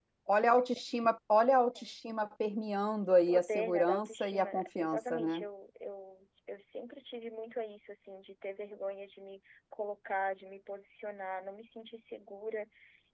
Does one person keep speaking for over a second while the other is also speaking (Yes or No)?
Yes